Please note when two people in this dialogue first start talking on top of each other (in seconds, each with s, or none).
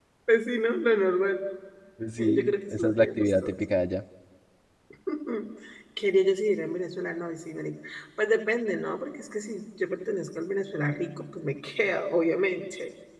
2.2 s